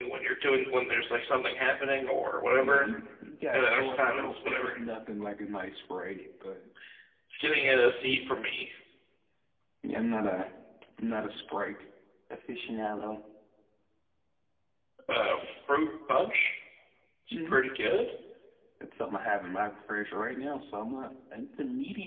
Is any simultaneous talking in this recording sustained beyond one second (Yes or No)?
Yes